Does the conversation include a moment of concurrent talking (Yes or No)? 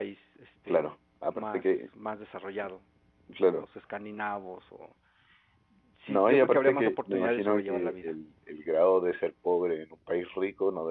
Yes